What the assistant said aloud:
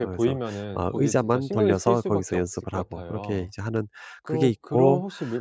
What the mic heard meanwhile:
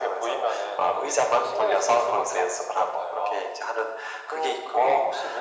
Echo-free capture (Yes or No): No